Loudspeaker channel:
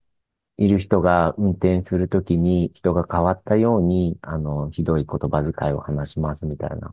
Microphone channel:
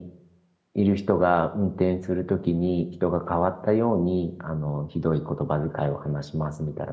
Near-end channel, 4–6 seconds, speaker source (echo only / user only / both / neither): echo only